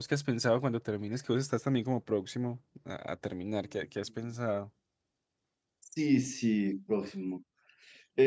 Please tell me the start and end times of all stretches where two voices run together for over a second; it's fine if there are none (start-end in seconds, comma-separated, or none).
none